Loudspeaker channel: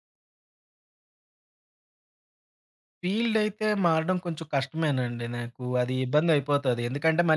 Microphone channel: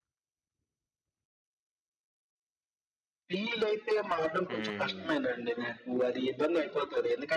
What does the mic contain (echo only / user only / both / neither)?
both